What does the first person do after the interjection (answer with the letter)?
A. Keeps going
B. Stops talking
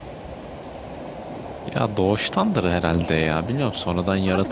B